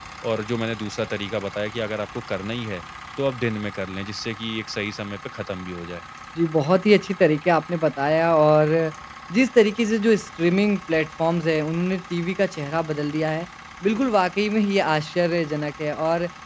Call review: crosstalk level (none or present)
none